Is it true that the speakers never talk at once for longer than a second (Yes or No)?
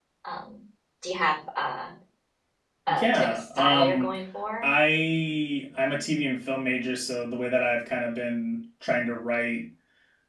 No